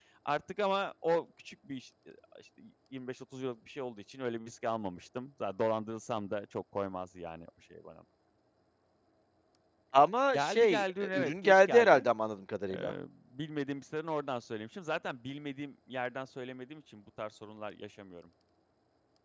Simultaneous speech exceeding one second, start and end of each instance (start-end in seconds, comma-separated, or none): 10.3-12.0